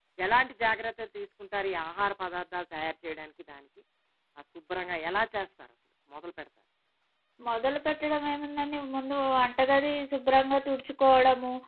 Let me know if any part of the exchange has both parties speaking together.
No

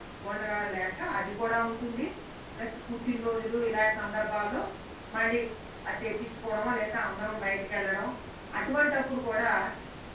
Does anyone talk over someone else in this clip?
No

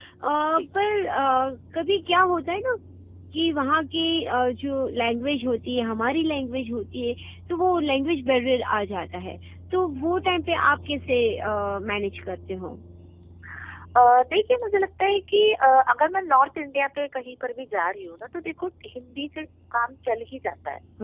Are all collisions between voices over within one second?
Yes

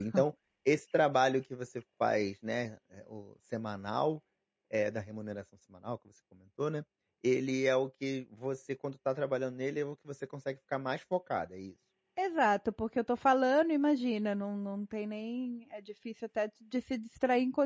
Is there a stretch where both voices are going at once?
No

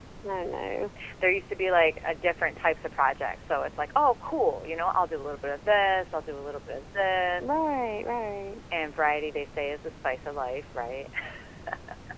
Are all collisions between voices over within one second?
Yes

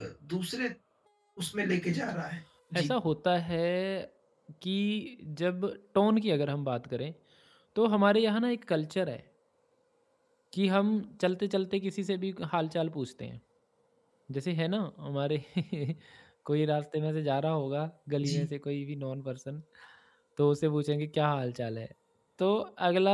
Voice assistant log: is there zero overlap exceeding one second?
Yes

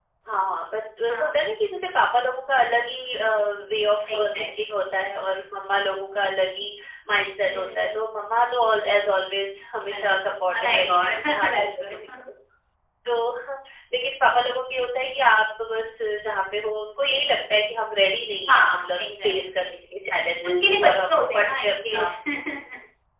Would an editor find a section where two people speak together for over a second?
Yes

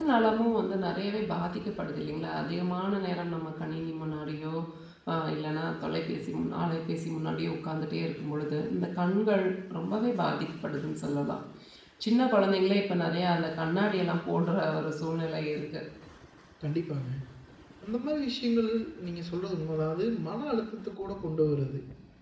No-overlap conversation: Yes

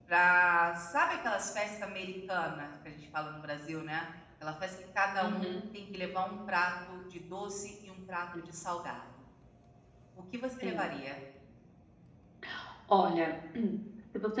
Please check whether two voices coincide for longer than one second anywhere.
No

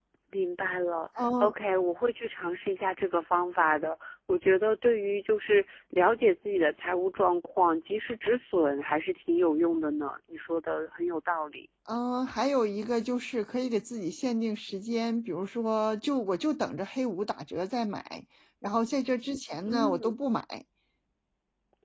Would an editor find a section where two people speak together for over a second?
No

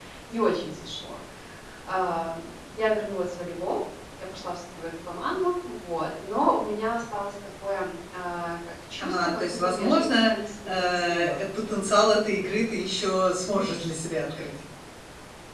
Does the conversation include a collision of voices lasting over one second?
Yes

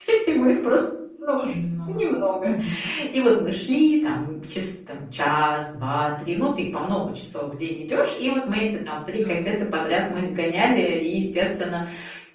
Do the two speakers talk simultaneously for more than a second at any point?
No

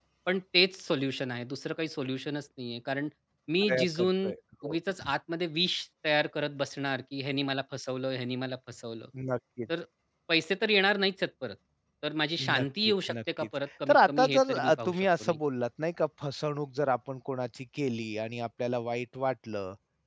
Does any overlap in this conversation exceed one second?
Yes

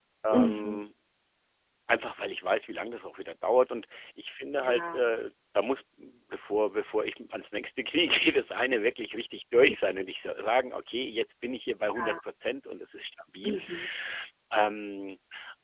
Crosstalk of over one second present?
No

